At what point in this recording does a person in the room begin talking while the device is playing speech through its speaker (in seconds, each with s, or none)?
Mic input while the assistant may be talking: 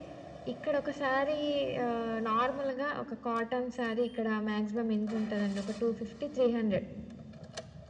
none